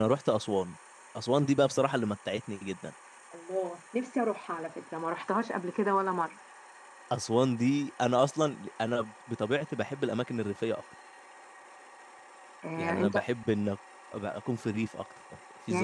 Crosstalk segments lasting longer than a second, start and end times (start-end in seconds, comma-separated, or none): none